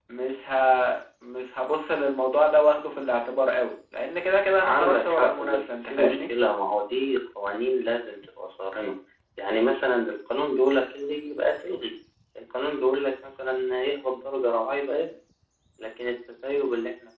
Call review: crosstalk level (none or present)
present